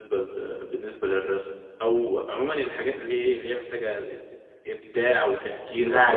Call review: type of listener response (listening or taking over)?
taking over